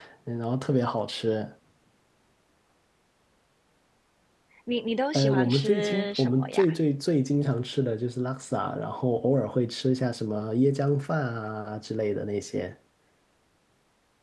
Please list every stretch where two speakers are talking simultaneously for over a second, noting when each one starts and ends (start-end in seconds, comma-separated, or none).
5.1-6.6